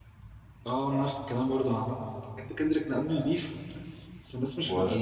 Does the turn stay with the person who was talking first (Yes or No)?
Yes